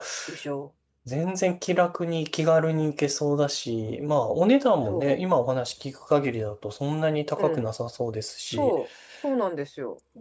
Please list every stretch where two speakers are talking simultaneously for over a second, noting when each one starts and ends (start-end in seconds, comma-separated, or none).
none